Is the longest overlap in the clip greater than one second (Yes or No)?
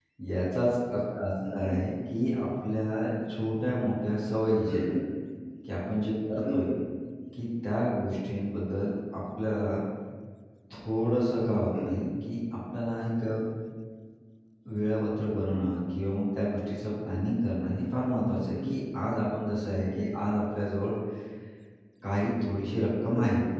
No